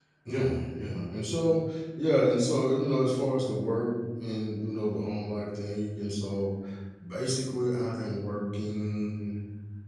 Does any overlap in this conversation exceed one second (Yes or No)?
No